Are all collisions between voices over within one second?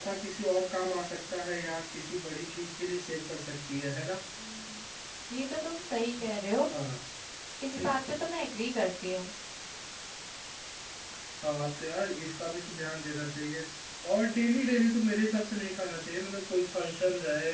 Yes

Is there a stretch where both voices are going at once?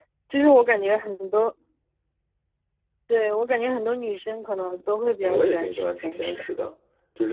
Yes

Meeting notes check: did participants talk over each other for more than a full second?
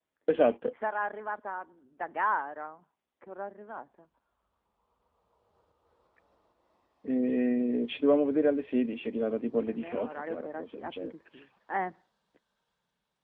Yes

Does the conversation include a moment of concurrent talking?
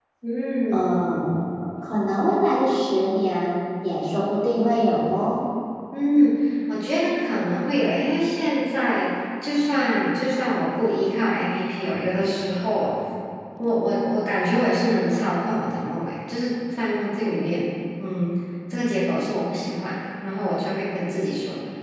No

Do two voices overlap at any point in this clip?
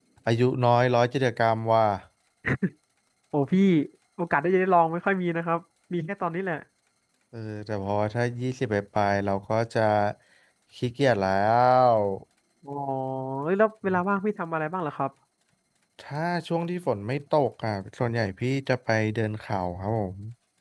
No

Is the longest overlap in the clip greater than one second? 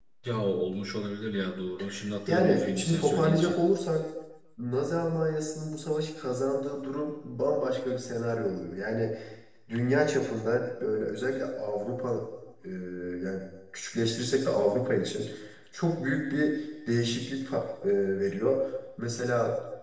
Yes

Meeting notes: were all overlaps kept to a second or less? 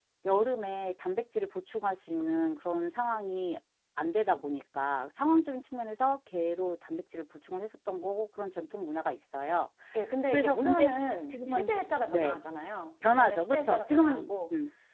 No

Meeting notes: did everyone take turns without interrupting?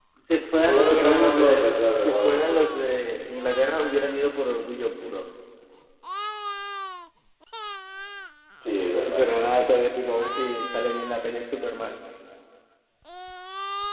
No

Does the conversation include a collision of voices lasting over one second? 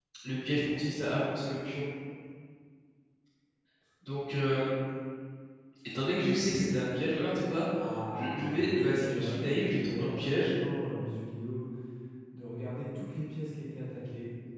Yes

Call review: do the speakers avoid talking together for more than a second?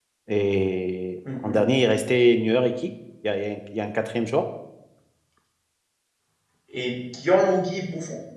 Yes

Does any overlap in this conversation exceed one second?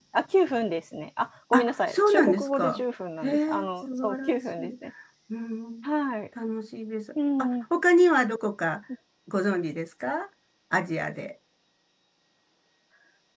Yes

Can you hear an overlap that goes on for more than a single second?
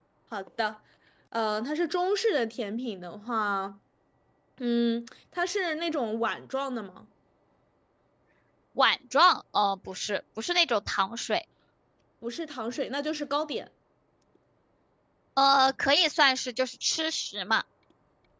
No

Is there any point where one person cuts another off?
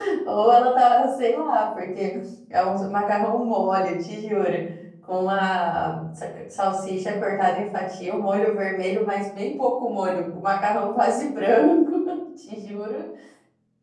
No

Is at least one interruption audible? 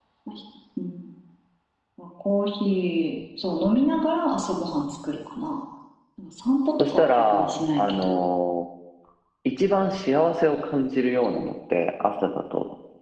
Yes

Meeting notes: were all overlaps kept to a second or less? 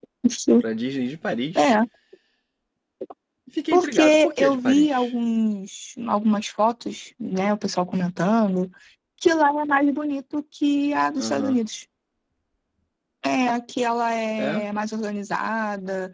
No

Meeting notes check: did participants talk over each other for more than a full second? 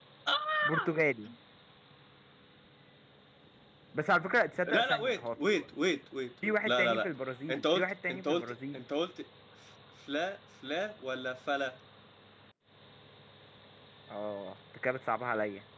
Yes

